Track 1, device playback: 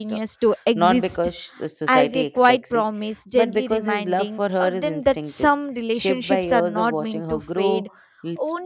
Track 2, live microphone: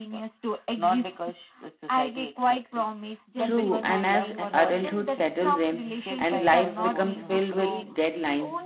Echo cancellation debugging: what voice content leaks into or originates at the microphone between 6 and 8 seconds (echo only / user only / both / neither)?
both